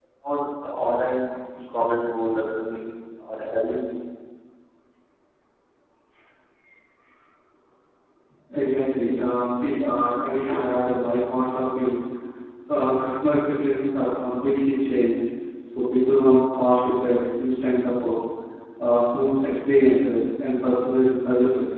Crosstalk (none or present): none